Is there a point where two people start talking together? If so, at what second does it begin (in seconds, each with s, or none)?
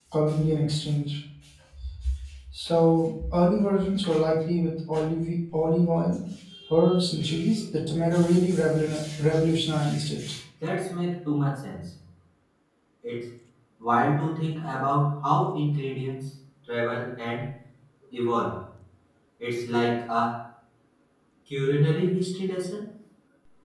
none